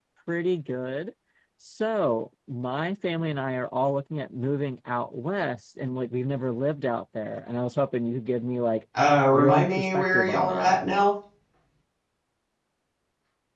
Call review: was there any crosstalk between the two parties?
Yes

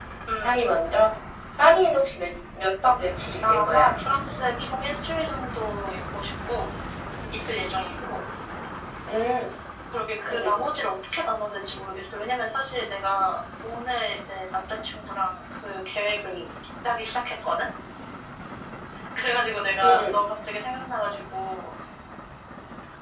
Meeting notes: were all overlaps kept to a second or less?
Yes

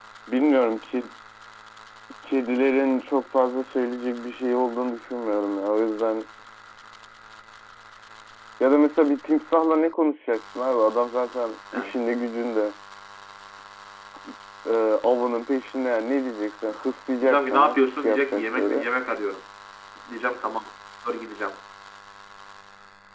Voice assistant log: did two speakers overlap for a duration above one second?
Yes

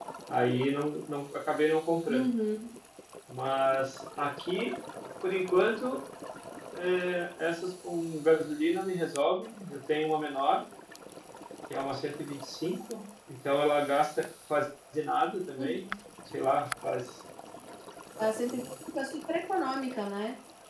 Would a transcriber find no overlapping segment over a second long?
Yes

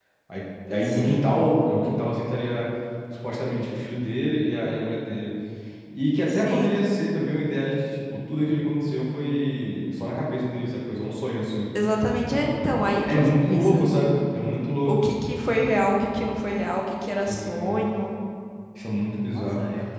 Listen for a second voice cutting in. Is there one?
Yes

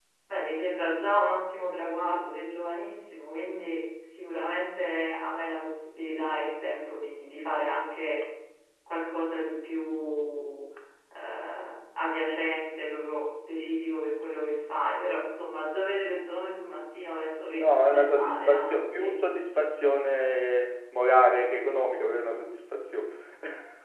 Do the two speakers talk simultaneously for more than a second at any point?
Yes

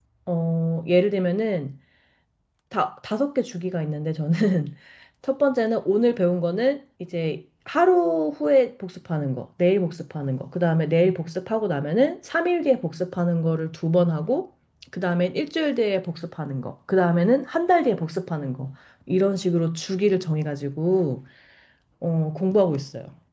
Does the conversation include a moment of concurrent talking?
No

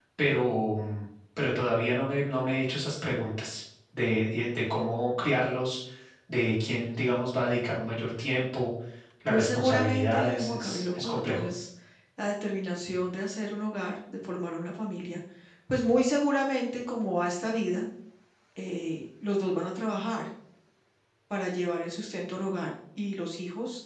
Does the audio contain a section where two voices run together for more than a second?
Yes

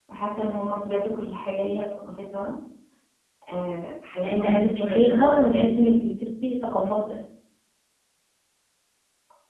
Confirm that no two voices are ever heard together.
No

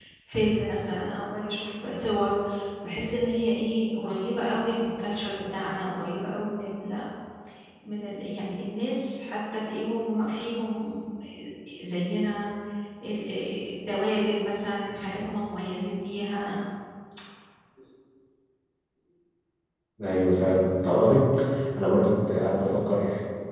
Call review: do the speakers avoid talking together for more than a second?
Yes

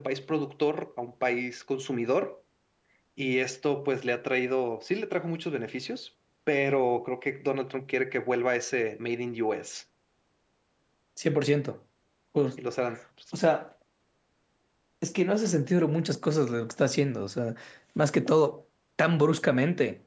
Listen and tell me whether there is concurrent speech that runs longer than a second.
No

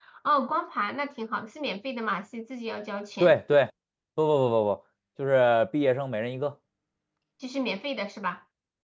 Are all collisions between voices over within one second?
Yes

